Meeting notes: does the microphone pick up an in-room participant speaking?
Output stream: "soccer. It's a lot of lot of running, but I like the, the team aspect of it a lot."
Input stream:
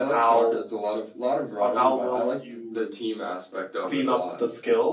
Yes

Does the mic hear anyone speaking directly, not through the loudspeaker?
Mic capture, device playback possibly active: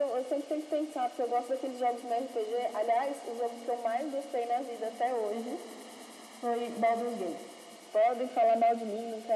No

